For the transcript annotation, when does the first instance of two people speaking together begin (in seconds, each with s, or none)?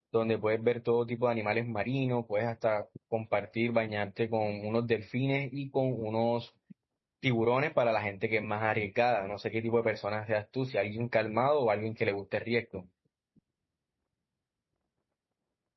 none